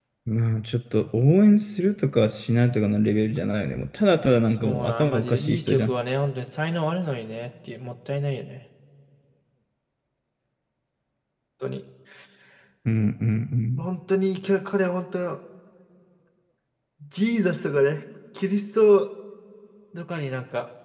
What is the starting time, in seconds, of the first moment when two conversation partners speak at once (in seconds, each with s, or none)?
4.6 s